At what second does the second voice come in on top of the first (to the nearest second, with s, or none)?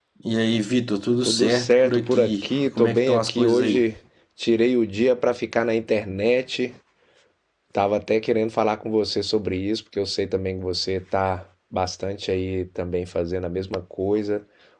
1 s